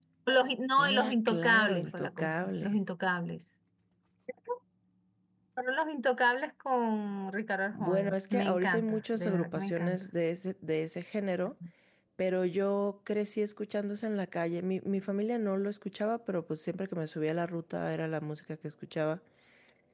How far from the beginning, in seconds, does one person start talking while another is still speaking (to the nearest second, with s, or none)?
1 s